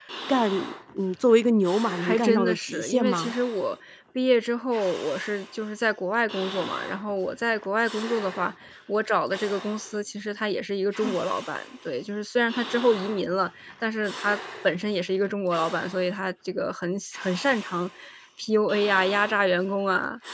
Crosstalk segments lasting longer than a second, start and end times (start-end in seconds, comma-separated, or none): 2.0-3.3